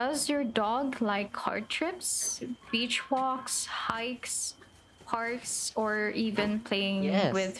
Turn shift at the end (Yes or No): Yes